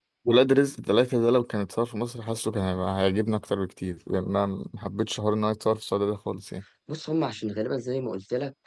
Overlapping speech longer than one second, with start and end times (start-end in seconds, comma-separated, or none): none